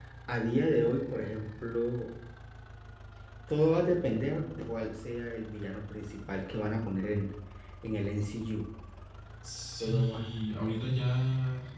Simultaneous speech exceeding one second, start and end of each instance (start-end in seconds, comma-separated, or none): none